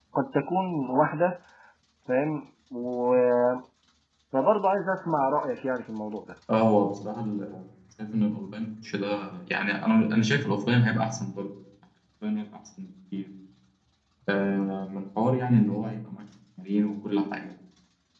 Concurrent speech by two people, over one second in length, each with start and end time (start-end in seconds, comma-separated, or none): none